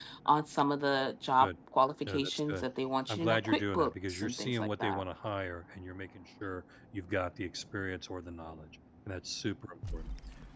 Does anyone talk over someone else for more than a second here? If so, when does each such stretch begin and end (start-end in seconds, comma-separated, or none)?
3.1-5.0